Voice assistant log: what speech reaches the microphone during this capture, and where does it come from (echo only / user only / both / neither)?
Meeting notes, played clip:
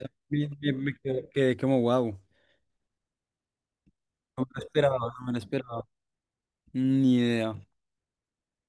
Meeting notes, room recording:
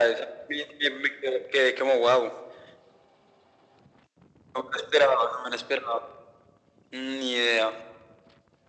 echo only